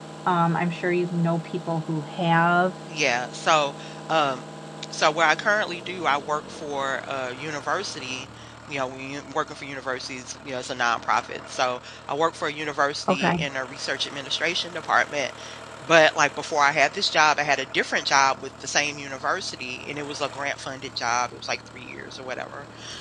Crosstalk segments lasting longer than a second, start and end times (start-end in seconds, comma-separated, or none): none